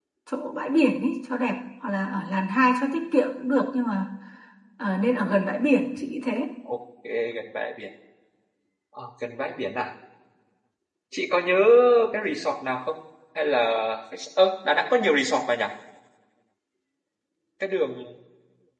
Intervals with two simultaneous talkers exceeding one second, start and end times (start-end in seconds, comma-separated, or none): none